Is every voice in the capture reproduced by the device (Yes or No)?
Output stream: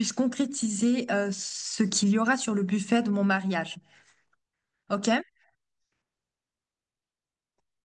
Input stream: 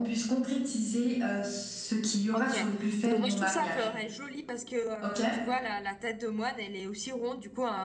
No